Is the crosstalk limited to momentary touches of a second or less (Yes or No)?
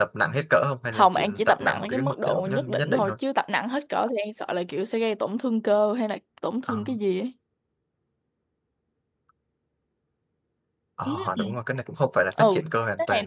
No